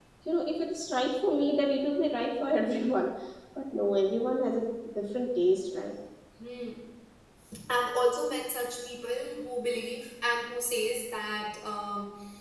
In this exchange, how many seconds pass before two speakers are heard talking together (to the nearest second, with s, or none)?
none